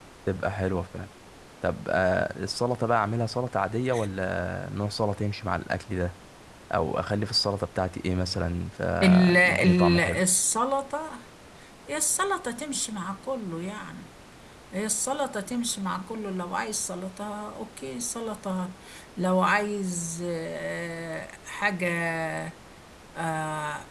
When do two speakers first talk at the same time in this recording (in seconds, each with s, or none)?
9.0 s